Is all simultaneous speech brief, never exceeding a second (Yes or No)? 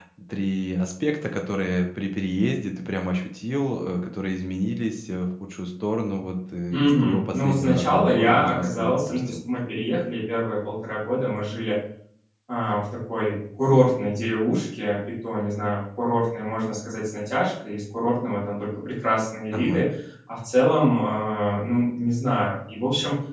No